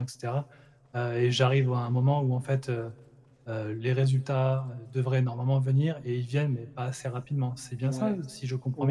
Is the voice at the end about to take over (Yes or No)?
Yes